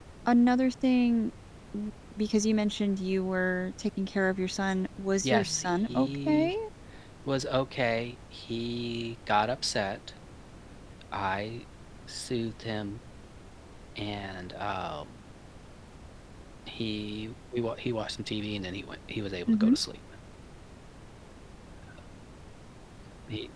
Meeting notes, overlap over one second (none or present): present